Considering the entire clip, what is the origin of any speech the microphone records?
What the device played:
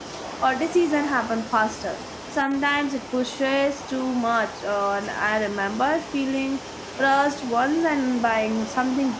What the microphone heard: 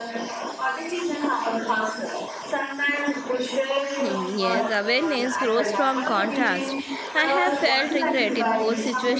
both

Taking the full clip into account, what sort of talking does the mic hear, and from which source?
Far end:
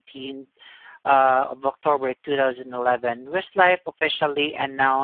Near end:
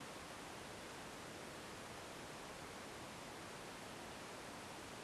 neither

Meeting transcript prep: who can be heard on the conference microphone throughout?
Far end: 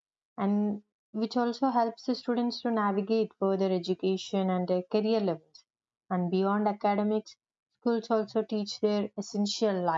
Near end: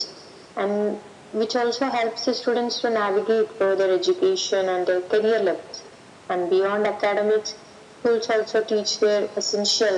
echo only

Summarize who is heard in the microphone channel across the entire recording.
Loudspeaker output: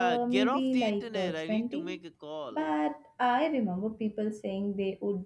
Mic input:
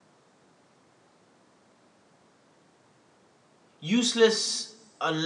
user only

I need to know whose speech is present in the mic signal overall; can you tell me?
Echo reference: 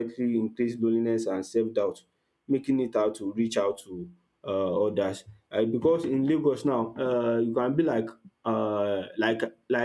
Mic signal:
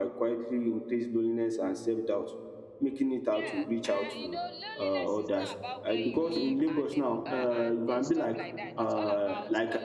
both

